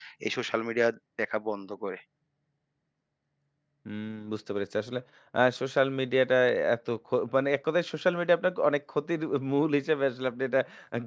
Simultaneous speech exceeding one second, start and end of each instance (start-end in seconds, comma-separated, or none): none